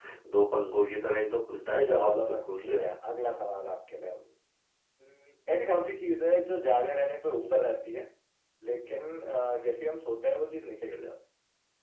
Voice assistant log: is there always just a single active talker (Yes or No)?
No